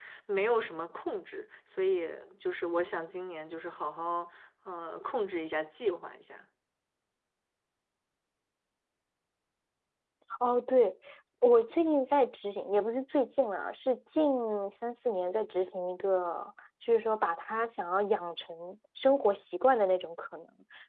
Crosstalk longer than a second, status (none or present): none